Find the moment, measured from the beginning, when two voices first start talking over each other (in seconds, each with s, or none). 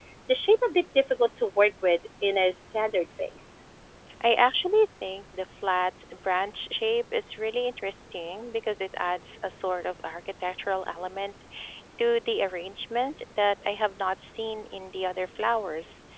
none